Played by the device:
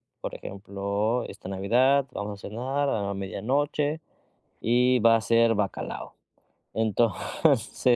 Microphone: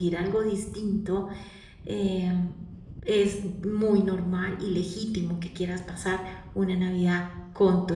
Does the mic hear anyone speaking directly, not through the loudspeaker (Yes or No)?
Yes